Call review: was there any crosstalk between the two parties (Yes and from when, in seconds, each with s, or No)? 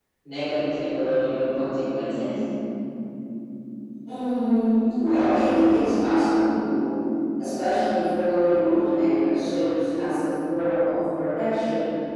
No